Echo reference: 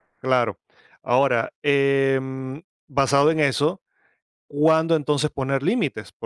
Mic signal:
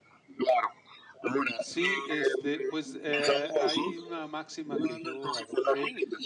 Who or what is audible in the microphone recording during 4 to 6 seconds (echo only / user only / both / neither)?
both